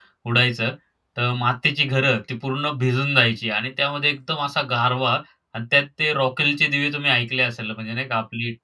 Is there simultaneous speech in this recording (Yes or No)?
No